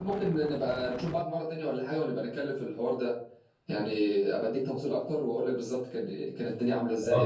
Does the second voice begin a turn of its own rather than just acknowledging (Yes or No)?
Yes